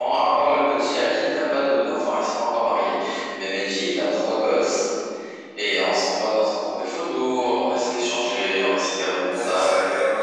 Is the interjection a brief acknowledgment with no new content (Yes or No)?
No